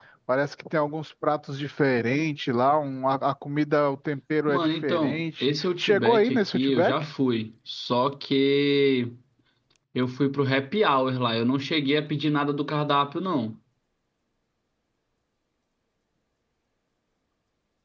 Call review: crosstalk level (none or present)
present